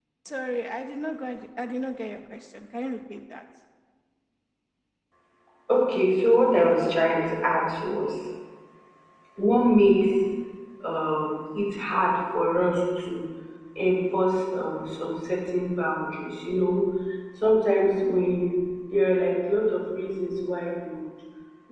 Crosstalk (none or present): none